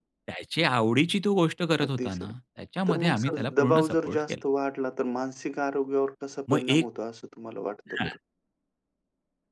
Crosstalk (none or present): present